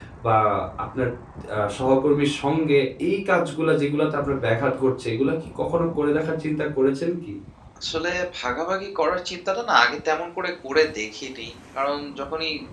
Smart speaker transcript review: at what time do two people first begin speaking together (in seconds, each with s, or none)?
none